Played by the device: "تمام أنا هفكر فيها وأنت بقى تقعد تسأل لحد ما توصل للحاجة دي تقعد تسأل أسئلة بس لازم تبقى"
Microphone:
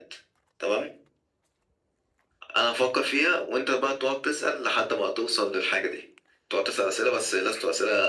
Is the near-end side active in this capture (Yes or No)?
No